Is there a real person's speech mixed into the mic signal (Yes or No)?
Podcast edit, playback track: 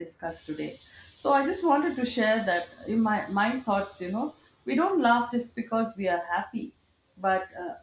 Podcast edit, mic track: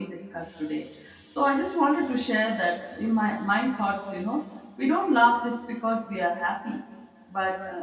No